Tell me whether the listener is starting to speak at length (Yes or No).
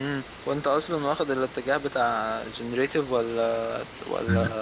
Yes